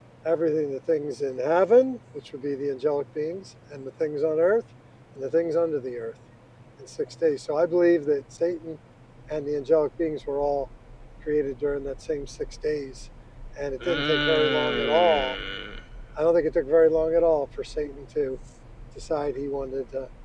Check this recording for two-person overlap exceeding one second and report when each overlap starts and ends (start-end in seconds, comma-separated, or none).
13.8-15.3